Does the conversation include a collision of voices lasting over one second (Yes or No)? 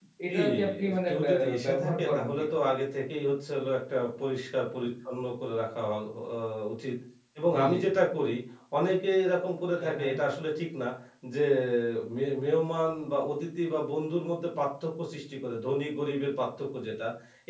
Yes